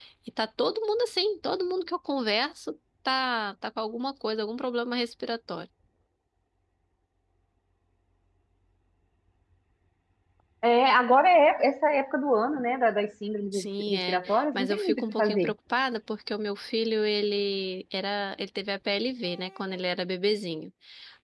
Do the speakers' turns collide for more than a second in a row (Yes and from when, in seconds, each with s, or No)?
Yes, from 13.5 s